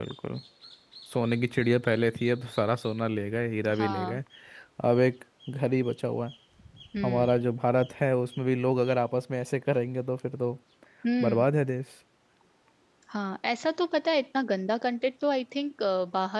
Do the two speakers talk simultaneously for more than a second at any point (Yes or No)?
No